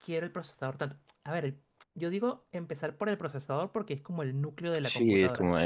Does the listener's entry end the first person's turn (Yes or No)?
Yes